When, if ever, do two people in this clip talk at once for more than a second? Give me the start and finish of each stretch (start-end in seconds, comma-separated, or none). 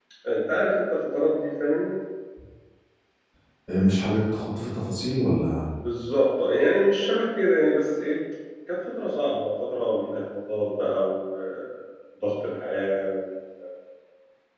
none